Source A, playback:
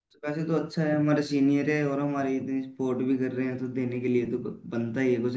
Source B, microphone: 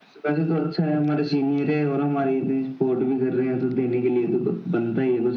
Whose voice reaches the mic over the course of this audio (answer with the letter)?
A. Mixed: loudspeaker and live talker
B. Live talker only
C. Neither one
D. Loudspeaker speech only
D